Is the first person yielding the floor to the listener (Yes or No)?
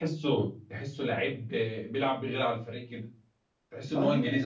No